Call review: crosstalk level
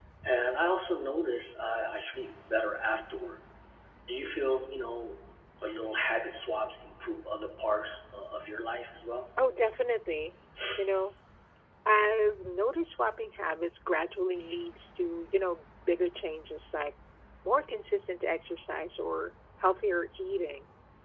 none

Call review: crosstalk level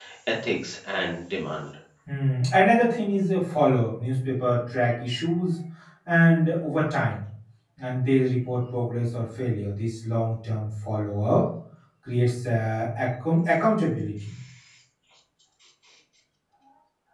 none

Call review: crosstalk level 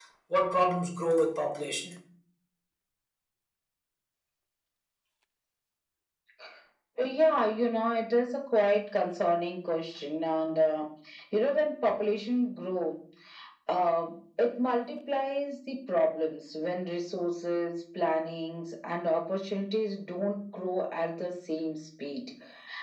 none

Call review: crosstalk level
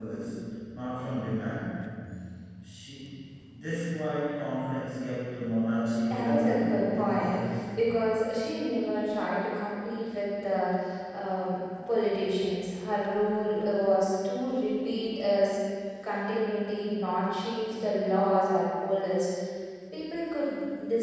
present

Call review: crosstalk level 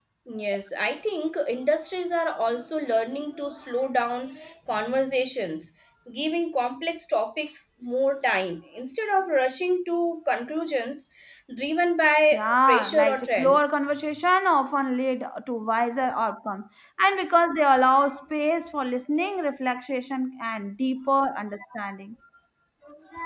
present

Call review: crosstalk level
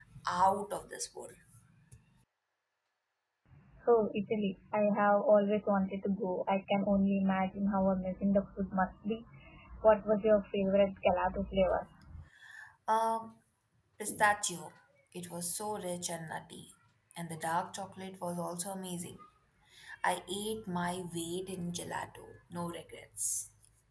none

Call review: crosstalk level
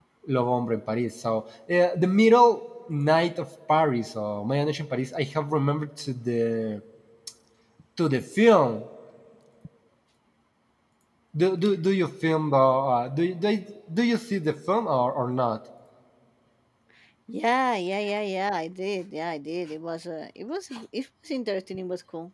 none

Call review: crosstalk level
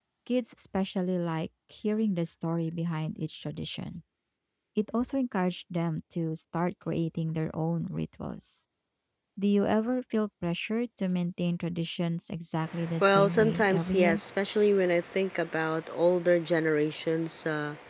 present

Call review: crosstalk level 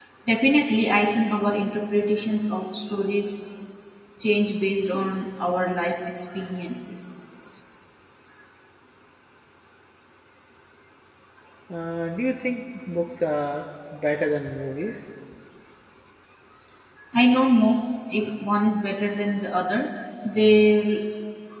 none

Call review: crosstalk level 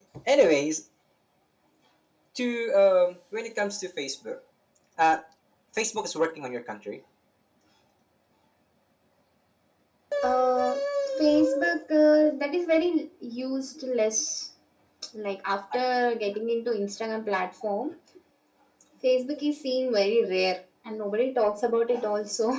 none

